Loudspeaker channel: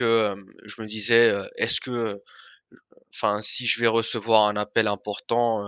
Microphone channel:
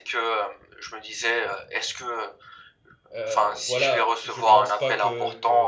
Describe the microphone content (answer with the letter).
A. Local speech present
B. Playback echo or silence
A